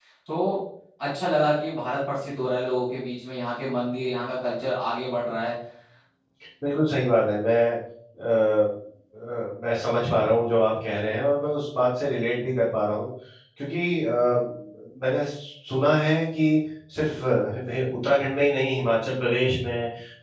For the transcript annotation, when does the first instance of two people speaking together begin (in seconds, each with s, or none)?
none